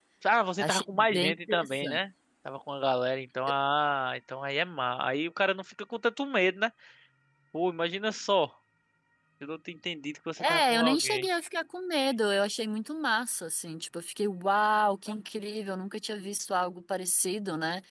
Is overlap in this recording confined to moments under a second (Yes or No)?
No